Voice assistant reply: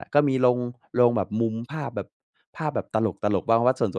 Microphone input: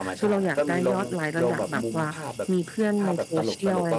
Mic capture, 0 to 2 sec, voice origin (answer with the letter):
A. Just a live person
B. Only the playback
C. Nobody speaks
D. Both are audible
D